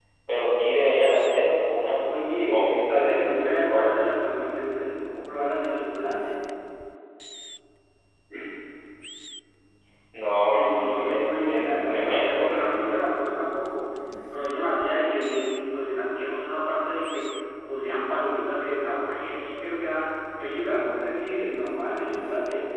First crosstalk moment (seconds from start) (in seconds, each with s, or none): 2.3 s